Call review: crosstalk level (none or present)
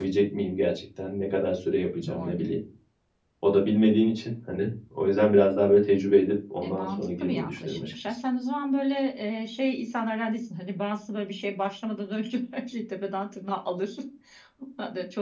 present